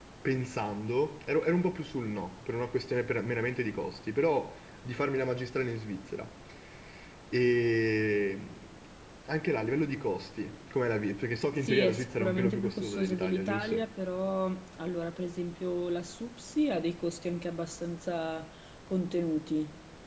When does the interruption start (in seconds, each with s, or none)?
11.6 s